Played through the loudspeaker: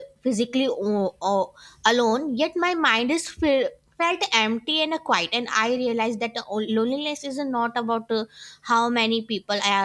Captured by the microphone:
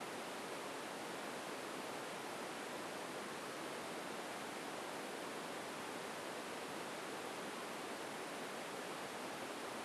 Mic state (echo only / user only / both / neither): neither